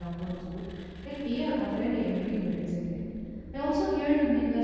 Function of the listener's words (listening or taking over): listening